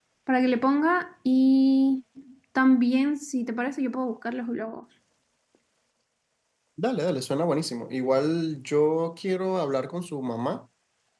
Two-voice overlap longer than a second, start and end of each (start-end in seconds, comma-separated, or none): none